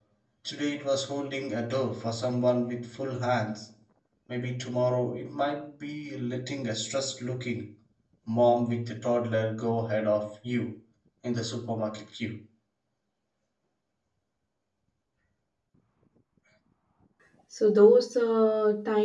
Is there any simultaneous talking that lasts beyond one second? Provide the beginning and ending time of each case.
none

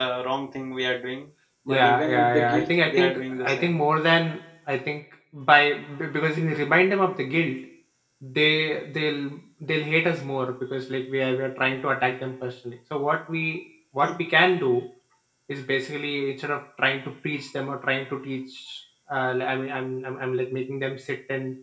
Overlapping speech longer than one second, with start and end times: 1.7-3.7

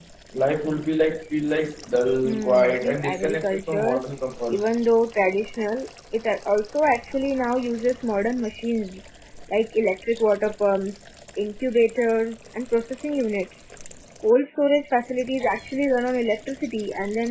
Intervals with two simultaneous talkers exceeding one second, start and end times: 2.2-4.0

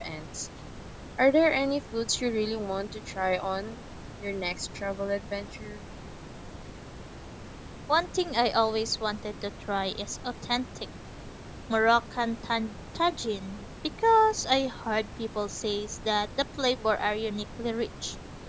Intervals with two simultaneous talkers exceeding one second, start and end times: none

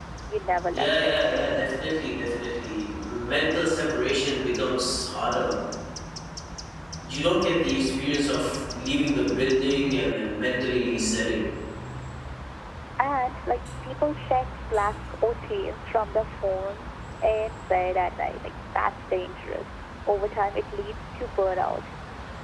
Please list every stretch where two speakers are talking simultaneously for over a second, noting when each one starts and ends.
none

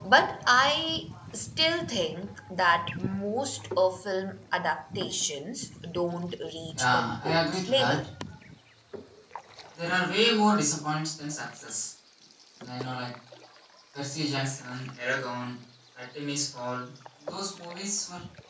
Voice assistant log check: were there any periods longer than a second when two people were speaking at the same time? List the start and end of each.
6.8-8.0

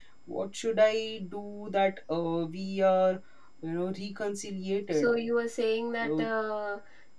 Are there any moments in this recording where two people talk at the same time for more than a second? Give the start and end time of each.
none

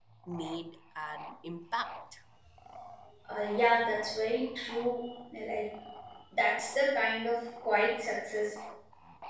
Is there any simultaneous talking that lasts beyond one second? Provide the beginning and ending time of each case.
none

